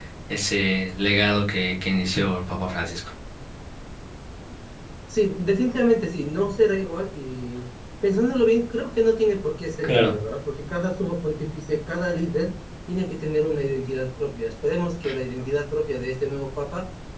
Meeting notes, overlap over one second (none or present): none